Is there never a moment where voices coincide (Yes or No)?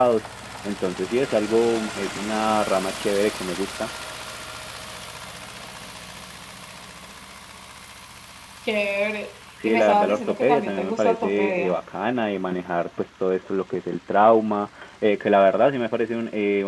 No